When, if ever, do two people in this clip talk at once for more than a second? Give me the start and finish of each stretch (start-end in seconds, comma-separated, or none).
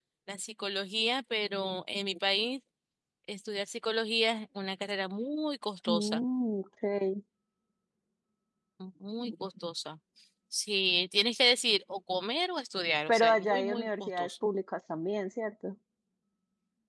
13.1-14.3